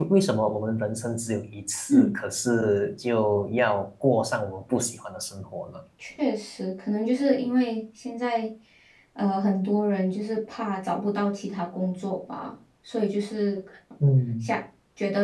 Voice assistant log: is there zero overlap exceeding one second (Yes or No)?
Yes